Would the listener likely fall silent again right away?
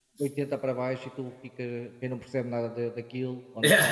Yes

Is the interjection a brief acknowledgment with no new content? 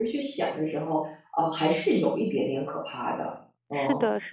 No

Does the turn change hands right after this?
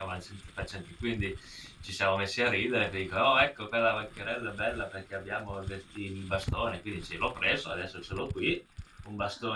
No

